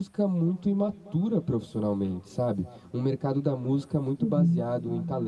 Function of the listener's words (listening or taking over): listening